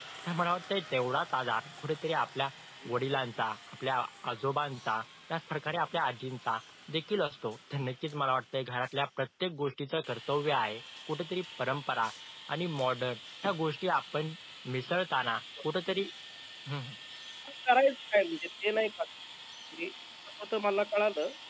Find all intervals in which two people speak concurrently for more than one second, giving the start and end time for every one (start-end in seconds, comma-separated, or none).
none